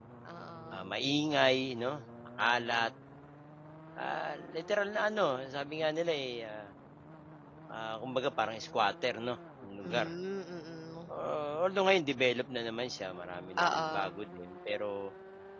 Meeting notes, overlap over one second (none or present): none